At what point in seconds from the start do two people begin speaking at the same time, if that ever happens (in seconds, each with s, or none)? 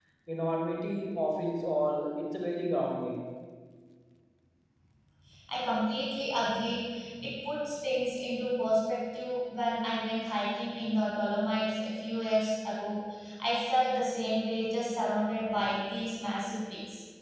none